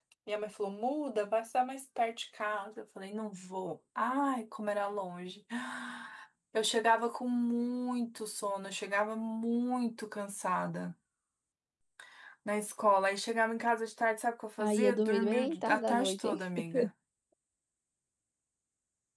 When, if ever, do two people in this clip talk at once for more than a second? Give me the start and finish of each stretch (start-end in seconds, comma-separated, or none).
14.6-16.4